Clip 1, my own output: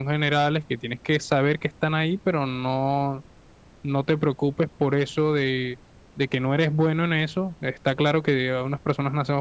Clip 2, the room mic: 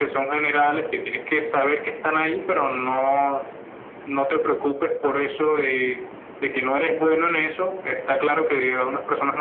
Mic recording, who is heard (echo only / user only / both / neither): echo only